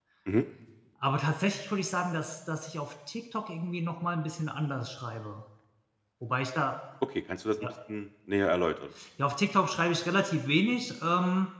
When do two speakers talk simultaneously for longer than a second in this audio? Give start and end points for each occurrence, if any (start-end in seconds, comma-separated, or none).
none